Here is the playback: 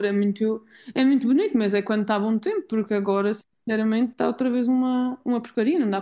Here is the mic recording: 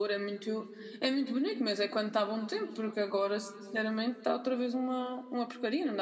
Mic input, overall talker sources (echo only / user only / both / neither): echo only